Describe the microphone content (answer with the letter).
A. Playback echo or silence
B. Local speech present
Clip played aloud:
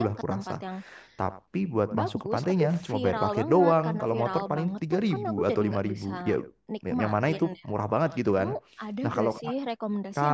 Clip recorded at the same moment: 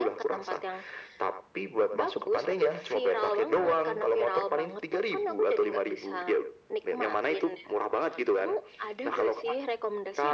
A